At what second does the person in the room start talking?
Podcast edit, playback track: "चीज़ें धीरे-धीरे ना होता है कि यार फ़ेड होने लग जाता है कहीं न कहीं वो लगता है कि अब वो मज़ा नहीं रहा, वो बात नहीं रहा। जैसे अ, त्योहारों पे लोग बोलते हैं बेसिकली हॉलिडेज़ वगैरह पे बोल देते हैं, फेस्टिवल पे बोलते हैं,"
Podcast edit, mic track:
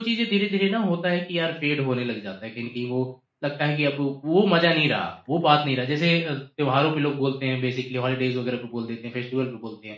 none

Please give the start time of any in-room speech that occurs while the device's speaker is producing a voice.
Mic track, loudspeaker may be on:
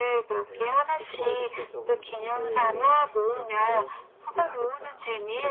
0.4 s

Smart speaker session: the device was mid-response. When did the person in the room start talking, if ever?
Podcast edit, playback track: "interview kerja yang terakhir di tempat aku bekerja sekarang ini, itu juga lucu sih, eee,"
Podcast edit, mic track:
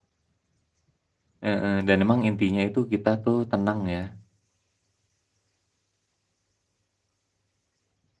1.4 s

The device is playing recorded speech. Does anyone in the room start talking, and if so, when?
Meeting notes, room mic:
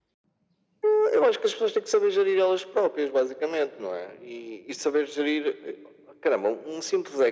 none

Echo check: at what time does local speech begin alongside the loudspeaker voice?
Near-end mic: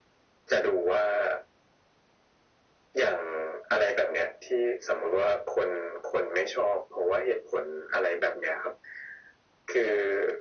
none

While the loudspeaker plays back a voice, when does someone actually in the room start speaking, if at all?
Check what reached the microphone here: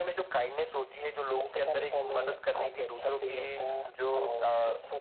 none

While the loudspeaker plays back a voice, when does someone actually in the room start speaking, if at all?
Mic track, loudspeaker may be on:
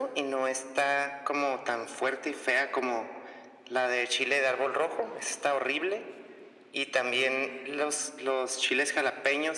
none

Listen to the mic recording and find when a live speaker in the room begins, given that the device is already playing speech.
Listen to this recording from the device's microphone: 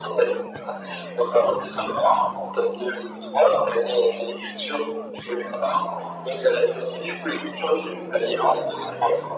none

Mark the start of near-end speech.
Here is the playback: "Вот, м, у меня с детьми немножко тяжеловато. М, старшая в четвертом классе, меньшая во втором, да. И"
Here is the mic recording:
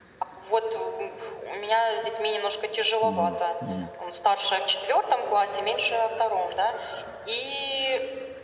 3.0 s

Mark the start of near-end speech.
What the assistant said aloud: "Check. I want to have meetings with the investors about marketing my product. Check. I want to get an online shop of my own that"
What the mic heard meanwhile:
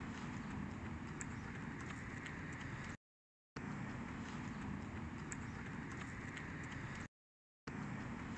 none

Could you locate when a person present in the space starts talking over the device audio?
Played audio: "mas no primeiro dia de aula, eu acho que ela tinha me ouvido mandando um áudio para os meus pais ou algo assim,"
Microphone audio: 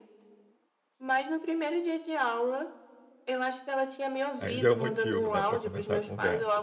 4.4 s

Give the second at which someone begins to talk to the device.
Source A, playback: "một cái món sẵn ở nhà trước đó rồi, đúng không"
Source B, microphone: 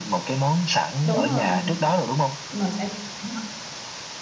1.0 s

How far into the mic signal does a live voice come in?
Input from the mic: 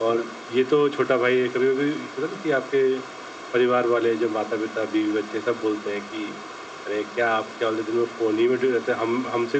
none

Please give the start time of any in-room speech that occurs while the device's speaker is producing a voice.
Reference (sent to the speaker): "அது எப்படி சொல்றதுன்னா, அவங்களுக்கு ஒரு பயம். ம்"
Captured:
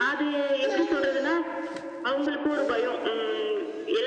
none

